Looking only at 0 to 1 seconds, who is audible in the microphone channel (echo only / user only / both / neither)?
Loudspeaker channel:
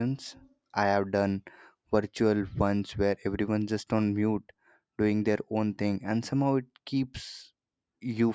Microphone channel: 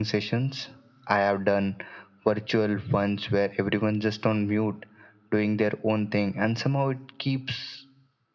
echo only